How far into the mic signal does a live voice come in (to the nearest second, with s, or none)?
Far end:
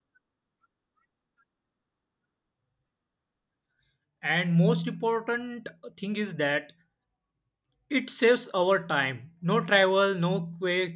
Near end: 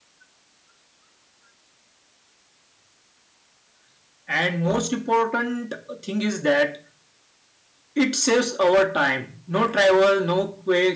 none